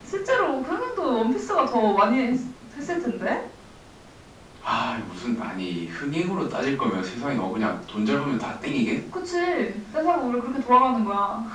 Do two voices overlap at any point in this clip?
No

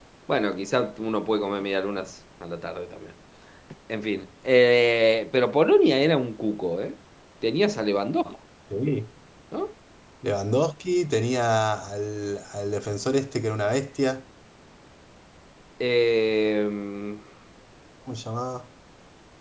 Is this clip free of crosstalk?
Yes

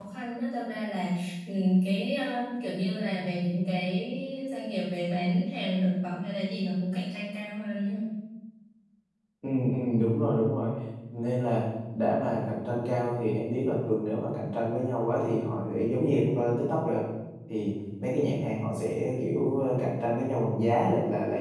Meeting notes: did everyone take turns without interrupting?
Yes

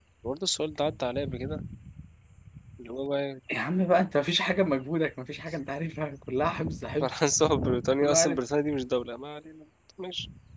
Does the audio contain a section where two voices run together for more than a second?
No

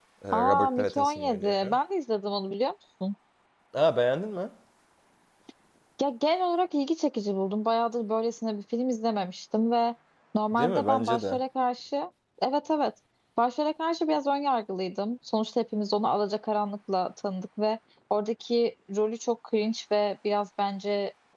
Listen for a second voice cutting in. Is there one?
Yes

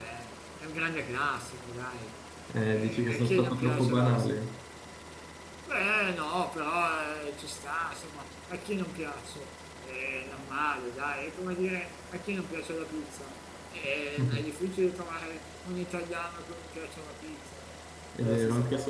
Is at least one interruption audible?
Yes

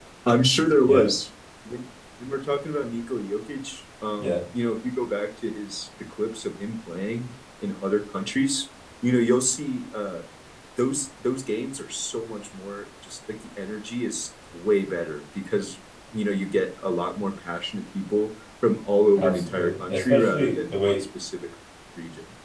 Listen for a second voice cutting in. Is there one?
Yes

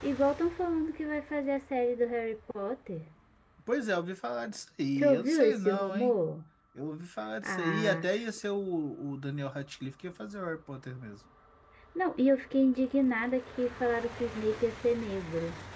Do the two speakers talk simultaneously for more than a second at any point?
Yes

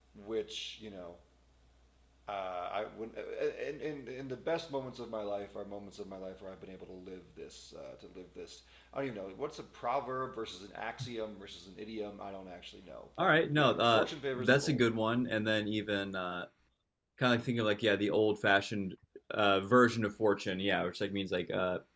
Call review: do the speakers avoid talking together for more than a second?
No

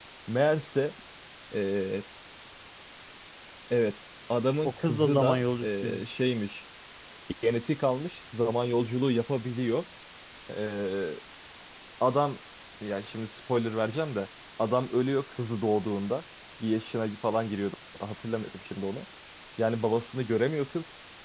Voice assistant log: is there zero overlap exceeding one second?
No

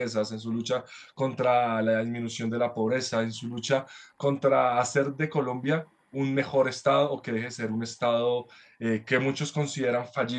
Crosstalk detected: No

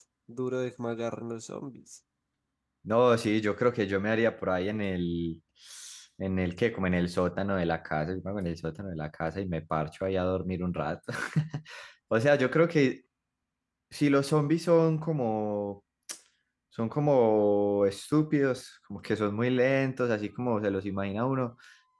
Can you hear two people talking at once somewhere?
No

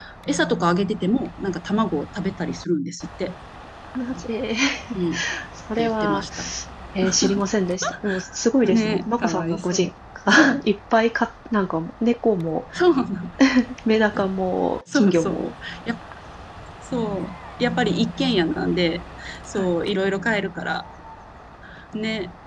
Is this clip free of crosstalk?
No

